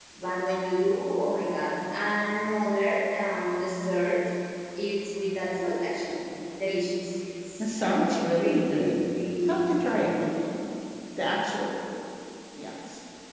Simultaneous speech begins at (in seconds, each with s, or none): 7.6 s